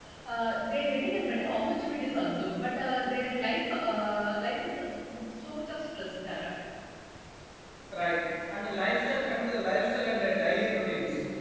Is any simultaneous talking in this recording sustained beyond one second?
No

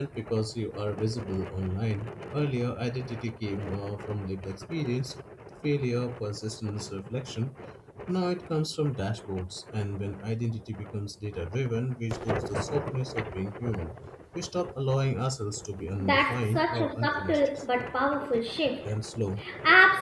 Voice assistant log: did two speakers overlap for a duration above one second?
Yes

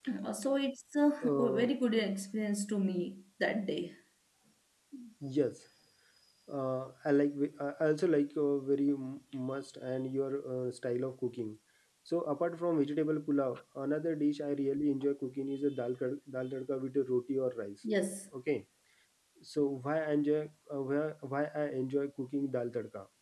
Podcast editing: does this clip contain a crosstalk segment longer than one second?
No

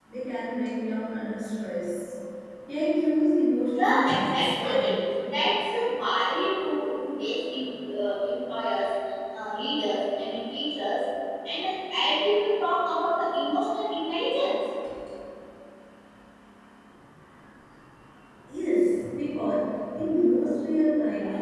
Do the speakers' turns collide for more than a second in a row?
Yes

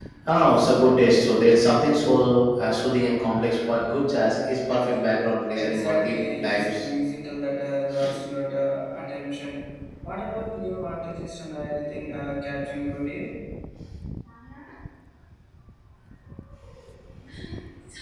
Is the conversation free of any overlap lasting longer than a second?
No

